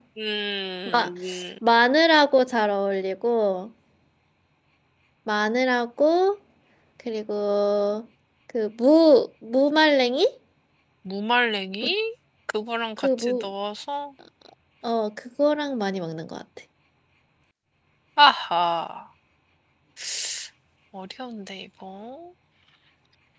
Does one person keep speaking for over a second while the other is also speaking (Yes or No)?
No